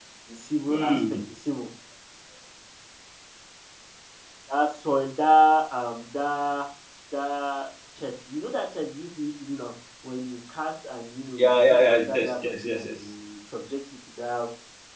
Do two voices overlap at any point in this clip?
Yes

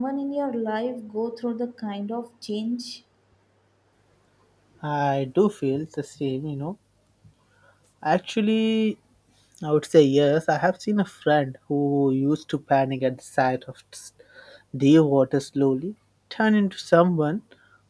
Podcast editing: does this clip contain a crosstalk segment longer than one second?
No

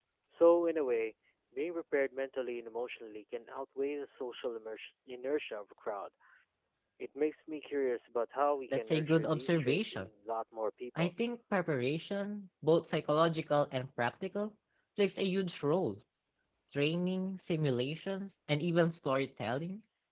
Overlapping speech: Yes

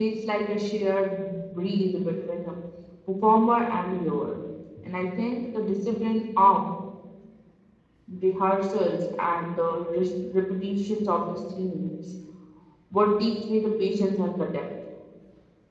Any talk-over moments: No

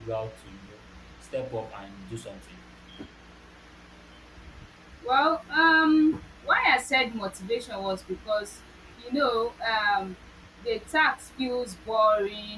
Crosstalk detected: No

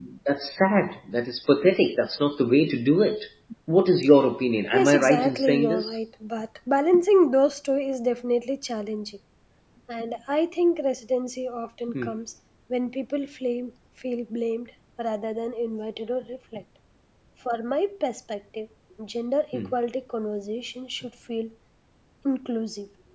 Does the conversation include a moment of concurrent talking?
Yes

